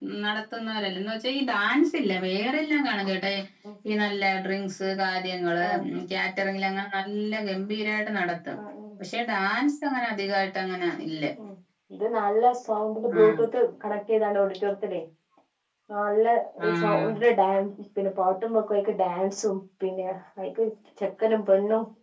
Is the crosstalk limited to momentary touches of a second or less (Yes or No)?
Yes